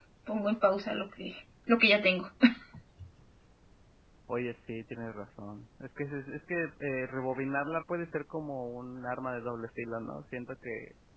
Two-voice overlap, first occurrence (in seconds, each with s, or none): none